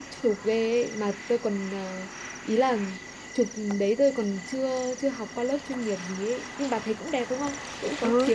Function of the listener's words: taking over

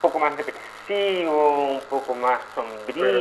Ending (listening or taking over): listening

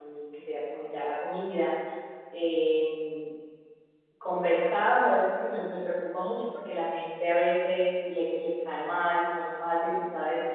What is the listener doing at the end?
listening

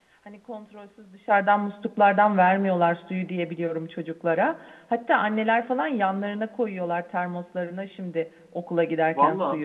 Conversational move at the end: taking over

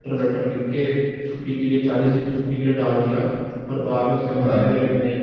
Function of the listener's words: listening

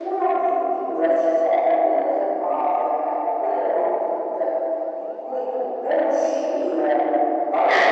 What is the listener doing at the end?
listening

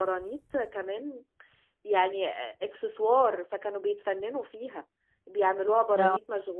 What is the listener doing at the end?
listening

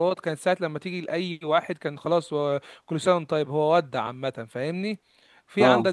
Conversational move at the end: listening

